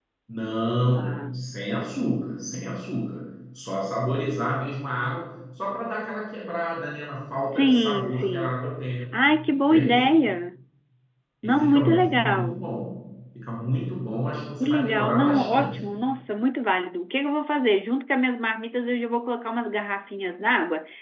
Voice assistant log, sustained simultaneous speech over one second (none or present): present